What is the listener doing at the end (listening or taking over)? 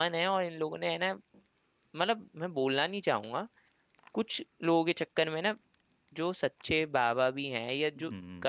listening